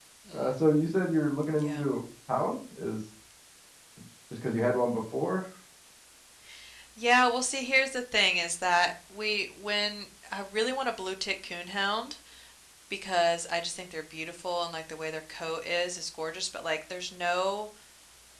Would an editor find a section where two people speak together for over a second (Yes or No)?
No